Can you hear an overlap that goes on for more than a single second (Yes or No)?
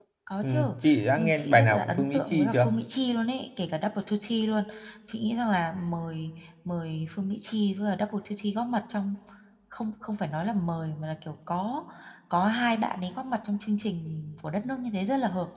Yes